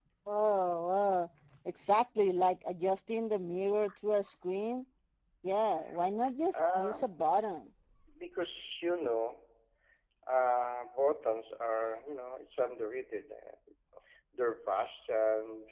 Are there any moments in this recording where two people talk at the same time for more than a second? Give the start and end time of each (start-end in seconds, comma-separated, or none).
none